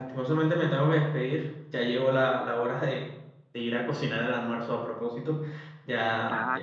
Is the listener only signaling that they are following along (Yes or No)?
Yes